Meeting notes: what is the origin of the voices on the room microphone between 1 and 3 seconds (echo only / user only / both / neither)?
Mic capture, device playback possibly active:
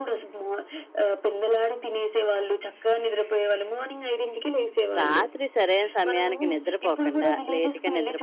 echo only